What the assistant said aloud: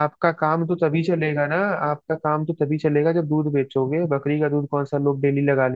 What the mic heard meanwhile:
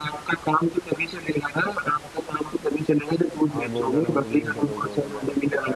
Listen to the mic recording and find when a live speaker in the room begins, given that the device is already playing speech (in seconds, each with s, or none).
3.5 s